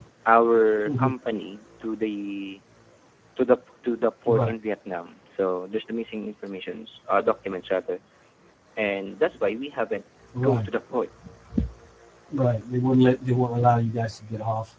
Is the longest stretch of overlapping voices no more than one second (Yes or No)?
Yes